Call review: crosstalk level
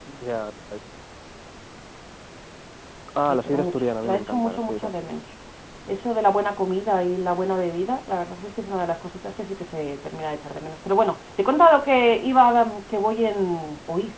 present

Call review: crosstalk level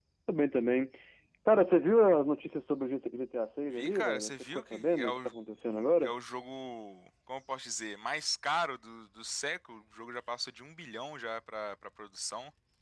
present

